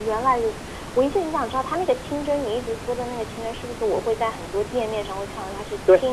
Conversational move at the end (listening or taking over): listening